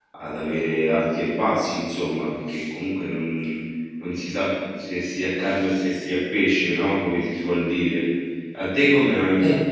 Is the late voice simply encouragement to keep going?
Yes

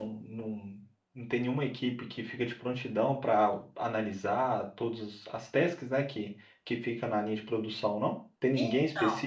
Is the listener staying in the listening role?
Yes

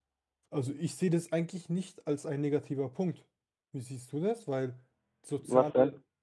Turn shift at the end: No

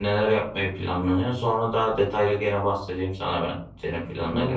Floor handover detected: Yes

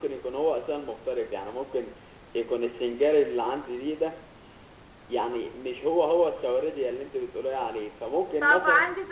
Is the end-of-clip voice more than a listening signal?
Yes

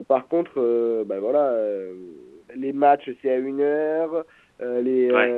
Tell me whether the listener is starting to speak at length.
No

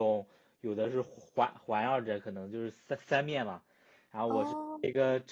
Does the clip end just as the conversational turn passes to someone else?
No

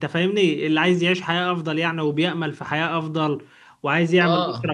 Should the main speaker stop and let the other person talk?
No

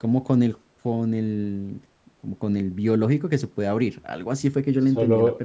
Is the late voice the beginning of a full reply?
Yes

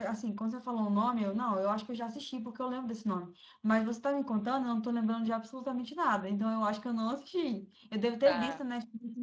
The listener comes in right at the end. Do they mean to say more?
No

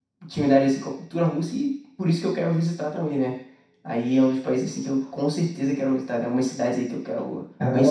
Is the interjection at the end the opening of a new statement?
Yes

